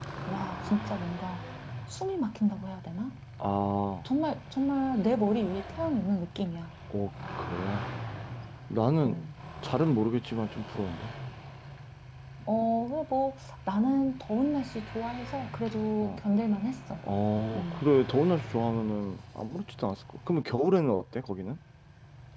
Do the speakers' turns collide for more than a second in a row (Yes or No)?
No